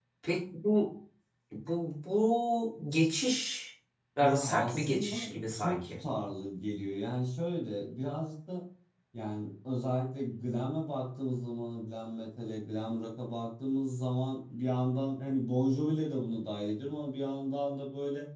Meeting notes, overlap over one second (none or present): present